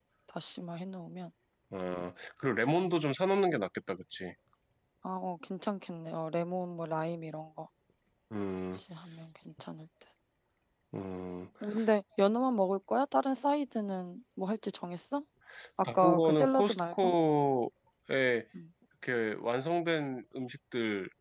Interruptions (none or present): present